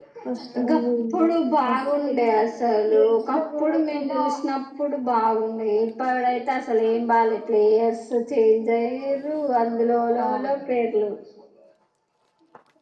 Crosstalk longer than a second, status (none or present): present